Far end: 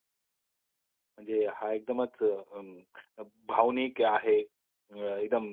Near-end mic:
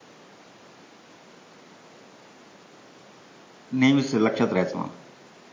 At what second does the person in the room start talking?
3.8 s

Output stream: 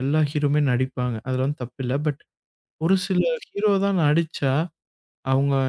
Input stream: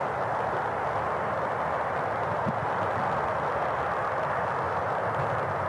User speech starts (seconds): none

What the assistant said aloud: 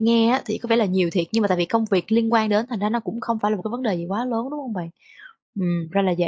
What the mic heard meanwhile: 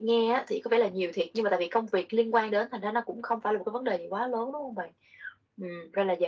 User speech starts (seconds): none

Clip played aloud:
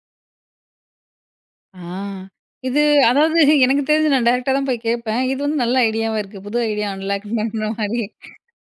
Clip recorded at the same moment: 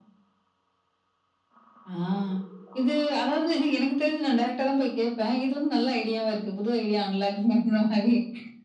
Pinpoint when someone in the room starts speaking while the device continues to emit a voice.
none

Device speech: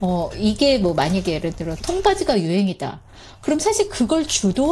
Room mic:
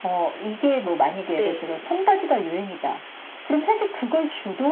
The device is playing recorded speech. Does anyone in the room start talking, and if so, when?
1.3 s

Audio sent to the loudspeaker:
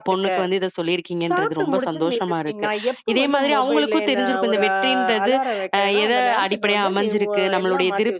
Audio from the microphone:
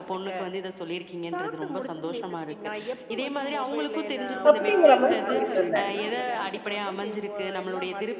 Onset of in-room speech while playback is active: 4.5 s

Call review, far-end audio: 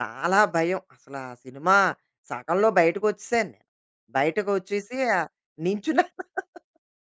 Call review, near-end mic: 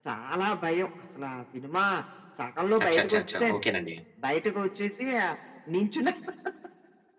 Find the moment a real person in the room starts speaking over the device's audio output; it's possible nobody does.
2.8 s

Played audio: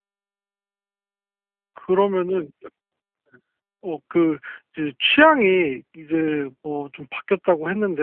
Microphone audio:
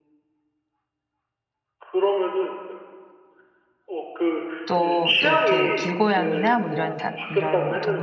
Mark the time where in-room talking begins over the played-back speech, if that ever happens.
4.7 s

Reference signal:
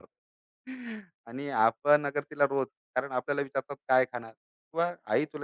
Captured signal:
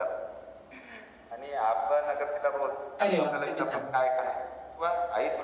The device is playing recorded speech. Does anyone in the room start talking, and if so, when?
3.0 s

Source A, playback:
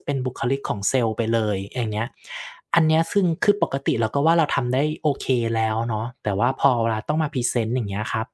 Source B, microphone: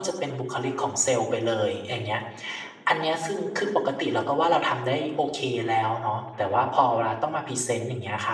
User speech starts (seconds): none

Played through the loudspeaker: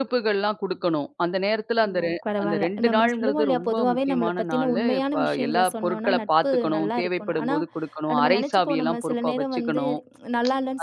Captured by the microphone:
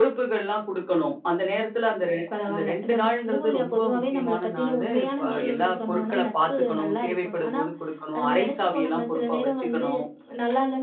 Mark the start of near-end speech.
5.3 s

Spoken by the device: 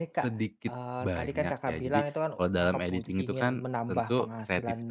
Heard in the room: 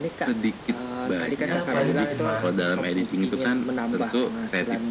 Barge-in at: 1.5 s

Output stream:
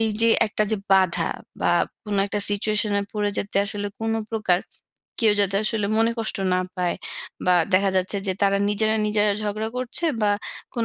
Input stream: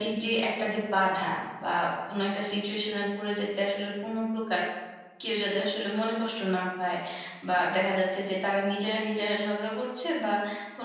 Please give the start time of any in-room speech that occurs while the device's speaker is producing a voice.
none

